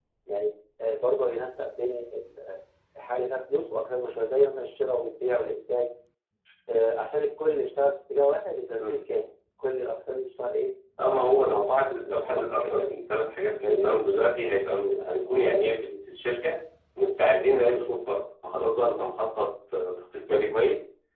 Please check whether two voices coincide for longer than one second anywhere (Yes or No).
Yes